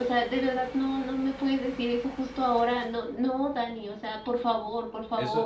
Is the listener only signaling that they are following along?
No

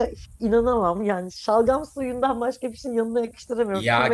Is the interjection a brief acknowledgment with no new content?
No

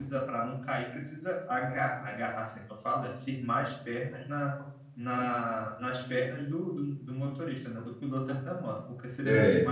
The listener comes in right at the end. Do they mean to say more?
No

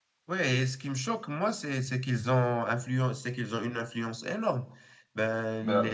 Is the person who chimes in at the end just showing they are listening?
Yes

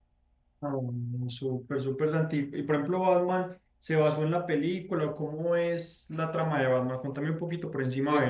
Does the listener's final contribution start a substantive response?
Yes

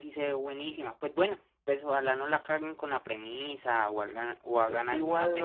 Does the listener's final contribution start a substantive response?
Yes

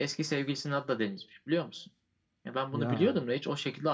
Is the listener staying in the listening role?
Yes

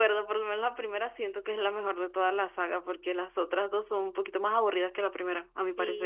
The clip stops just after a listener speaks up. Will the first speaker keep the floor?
No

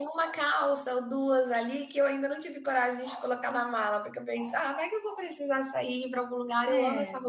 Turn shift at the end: No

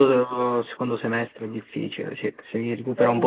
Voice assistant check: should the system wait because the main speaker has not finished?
Yes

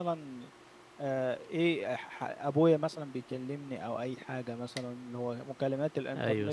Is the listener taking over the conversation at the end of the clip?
No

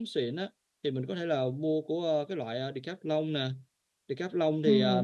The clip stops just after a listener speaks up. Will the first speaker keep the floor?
Yes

